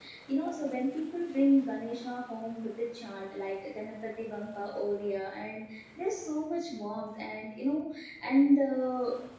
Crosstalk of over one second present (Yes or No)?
No